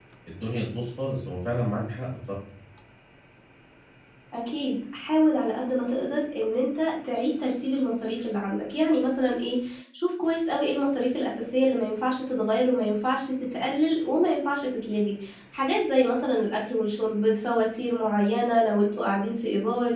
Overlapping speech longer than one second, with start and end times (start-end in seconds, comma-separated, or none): none